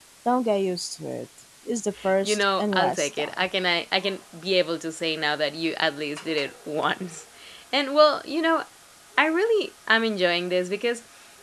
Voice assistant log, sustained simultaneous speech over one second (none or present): present